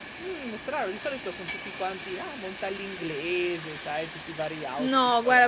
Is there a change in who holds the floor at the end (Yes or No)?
Yes